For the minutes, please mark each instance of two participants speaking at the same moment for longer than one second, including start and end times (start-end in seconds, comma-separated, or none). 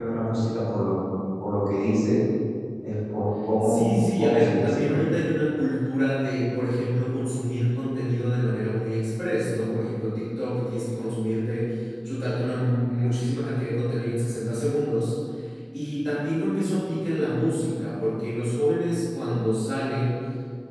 3.6-5.0